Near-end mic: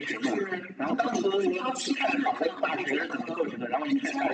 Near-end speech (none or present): none